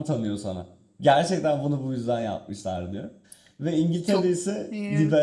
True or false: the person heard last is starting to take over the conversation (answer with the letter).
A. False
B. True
A